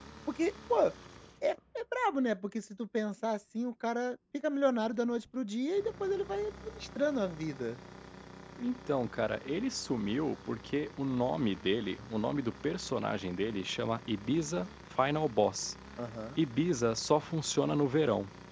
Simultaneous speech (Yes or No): No